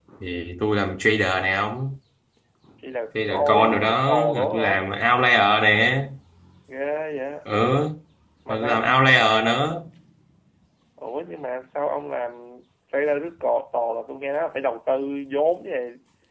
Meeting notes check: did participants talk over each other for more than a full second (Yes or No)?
Yes